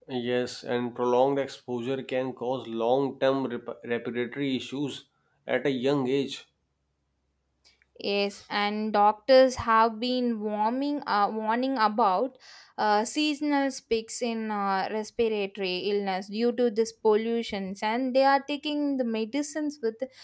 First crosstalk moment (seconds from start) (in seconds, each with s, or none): none